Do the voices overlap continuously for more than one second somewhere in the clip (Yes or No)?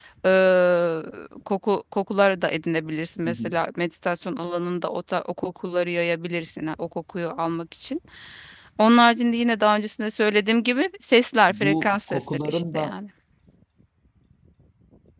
Yes